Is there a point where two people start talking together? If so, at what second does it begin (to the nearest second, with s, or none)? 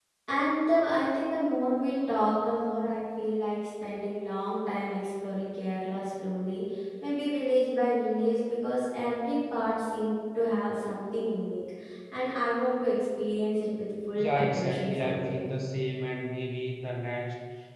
14 s